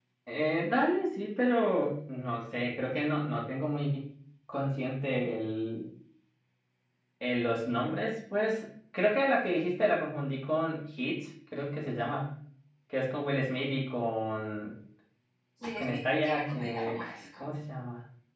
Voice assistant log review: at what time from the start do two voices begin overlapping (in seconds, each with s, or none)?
15.8 s